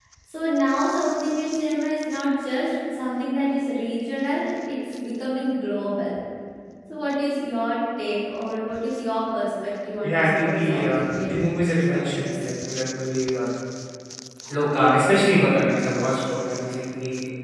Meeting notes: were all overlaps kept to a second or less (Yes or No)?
No